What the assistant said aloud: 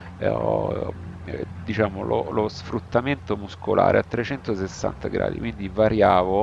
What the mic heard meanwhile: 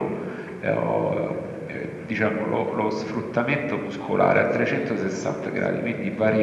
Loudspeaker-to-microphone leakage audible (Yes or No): Yes